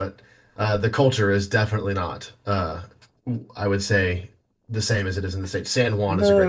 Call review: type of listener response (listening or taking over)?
taking over